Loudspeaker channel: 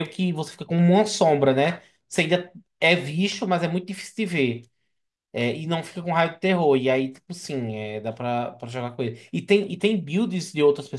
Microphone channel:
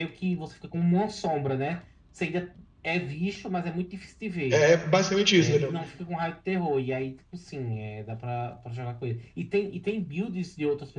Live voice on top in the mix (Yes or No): Yes